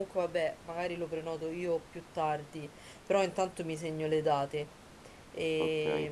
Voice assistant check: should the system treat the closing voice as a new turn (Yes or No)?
No